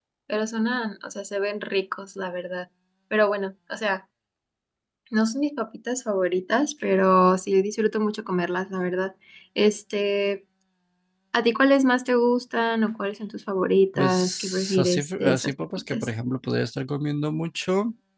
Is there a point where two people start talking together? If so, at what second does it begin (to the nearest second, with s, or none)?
14 s